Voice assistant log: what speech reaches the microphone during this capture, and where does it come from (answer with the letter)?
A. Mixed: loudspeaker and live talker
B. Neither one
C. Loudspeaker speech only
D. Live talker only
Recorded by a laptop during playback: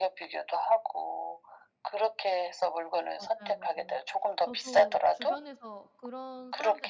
A